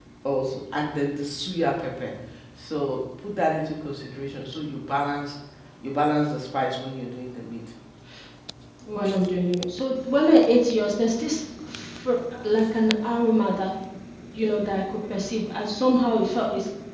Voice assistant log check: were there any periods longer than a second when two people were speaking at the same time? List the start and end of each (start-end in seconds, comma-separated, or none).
none